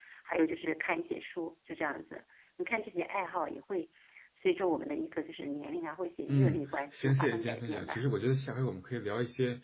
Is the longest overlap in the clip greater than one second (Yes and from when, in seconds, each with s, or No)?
Yes, from 6.3 s